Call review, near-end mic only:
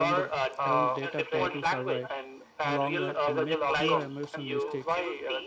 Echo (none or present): present